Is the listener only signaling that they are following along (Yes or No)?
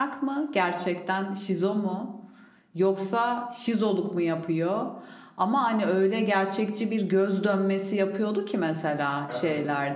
Yes